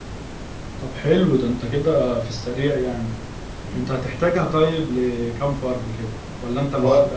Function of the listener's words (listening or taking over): taking over